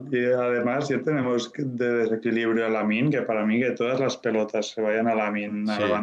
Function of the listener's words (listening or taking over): listening